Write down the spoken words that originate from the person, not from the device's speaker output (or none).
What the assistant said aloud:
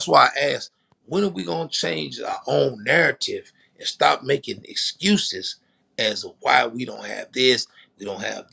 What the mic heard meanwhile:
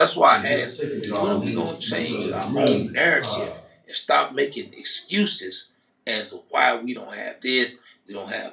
and just taking it all in because I'm really. uh,